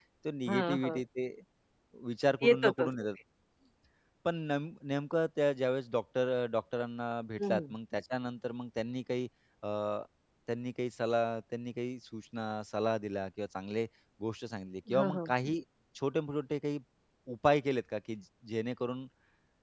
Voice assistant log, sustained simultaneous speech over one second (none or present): none